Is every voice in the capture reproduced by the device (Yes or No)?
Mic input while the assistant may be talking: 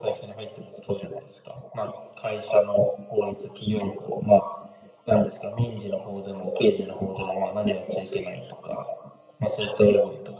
Yes